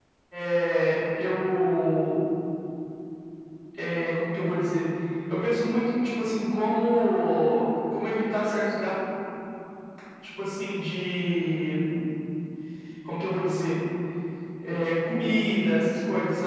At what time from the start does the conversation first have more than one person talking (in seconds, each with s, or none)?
none